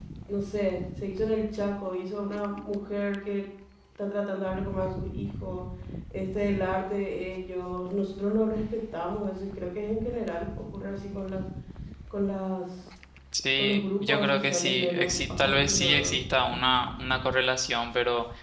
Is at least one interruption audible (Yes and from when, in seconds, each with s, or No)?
Yes, from 13.6 s